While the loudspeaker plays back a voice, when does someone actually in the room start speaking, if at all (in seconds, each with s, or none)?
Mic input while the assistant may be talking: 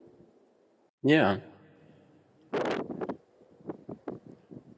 1.0 s